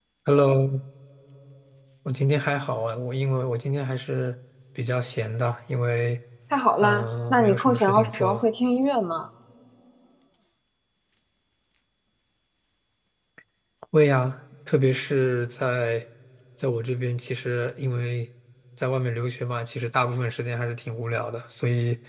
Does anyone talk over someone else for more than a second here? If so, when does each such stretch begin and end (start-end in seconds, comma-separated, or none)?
6.8-8.4